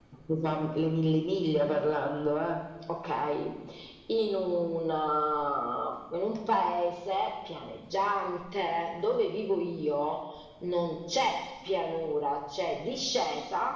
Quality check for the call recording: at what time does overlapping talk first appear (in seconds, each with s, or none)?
none